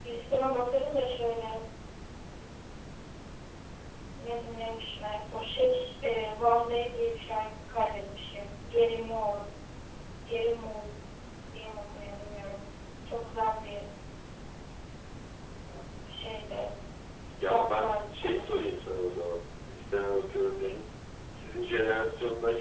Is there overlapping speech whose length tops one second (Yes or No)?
Yes